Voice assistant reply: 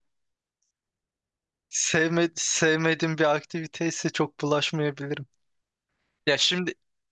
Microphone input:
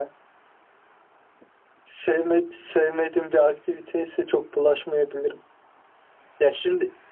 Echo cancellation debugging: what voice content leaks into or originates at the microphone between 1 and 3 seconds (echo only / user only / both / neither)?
echo only